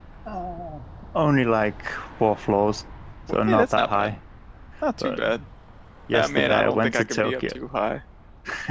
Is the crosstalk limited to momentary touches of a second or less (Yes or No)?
No